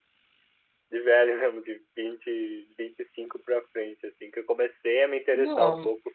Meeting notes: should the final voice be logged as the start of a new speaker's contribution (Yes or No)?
No